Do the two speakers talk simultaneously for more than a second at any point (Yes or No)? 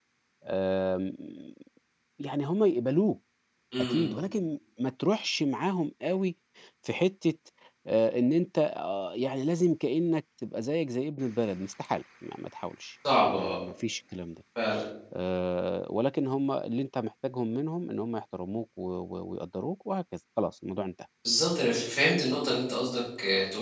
No